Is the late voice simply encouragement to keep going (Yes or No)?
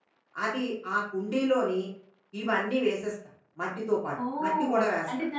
No